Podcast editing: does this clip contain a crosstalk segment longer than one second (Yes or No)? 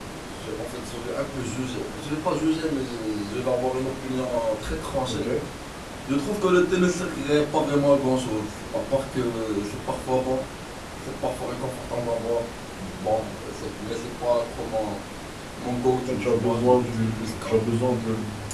Yes